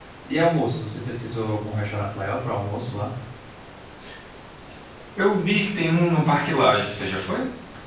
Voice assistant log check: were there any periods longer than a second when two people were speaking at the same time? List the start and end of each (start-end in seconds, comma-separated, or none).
none